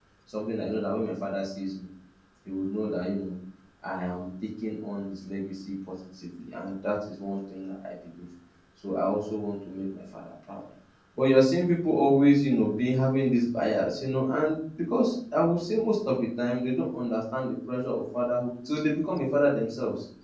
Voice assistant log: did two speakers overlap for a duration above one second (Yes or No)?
No